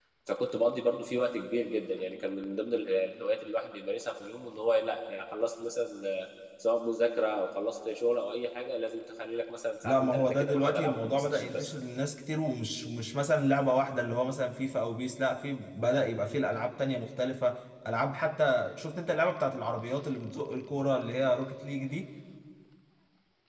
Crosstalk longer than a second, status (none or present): present